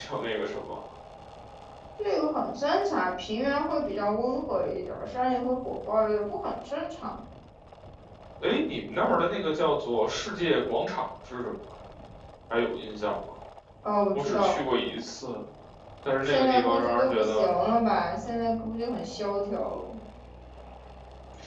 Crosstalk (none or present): present